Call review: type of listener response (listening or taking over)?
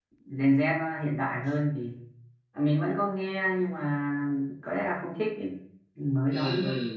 taking over